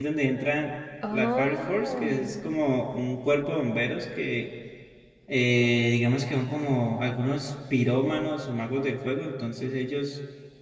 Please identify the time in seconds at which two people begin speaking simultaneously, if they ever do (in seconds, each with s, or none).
1.1 s